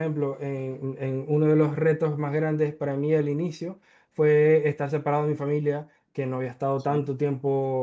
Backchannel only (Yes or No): Yes